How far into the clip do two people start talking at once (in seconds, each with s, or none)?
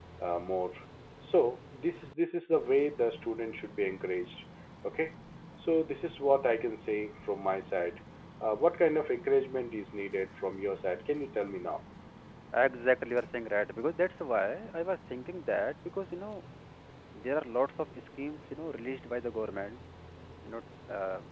none